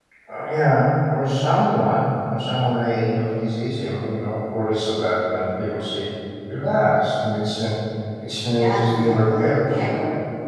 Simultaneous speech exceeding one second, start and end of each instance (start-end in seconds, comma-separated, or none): 8.5-9.8